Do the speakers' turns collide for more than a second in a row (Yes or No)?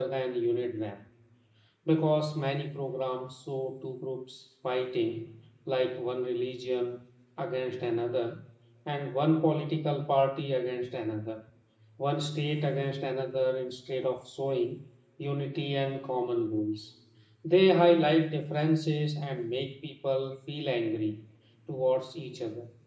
No